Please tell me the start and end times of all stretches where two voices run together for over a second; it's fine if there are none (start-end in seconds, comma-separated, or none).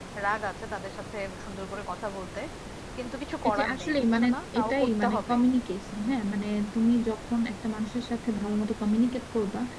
3.5-5.4